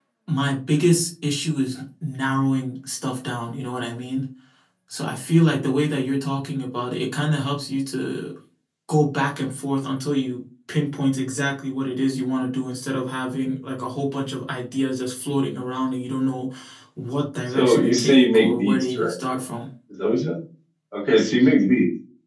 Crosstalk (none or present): present